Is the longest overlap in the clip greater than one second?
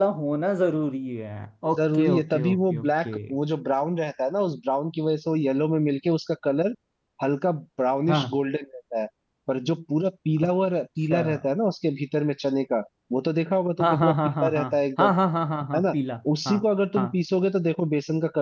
Yes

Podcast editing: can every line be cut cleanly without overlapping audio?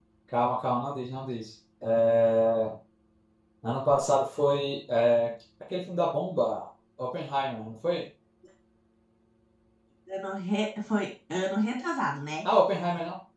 Yes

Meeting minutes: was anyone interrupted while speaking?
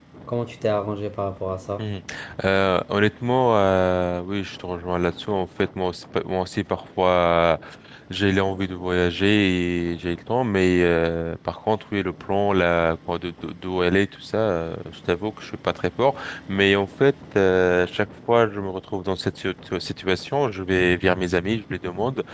No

